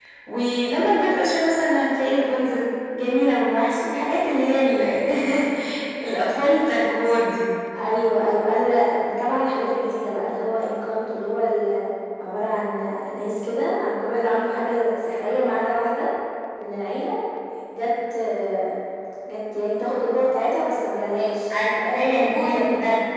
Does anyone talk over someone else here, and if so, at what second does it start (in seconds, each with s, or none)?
21.5 s